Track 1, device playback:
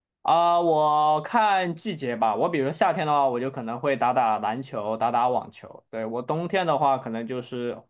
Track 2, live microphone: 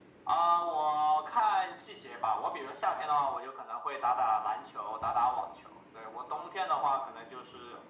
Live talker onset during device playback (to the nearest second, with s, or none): none